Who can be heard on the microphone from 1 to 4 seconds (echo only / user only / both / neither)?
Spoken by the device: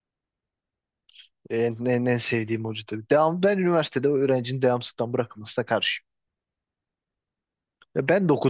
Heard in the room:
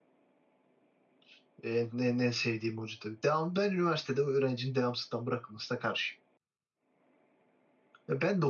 echo only